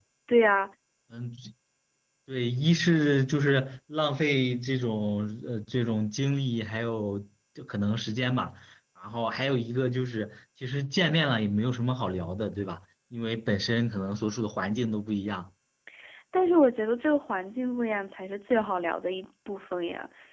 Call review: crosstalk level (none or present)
none